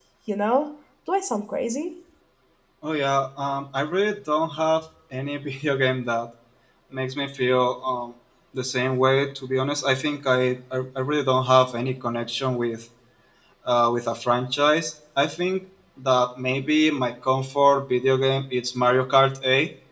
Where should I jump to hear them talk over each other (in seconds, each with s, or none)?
none